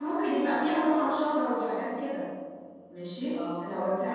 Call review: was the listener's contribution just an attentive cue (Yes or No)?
Yes